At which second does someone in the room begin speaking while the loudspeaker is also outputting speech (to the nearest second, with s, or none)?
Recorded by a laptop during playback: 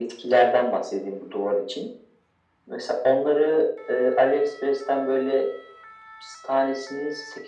none